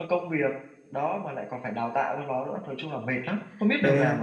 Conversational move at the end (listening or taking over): taking over